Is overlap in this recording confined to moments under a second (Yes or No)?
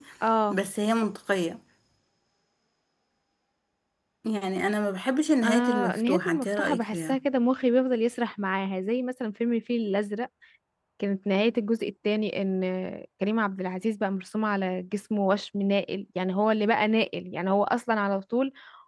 No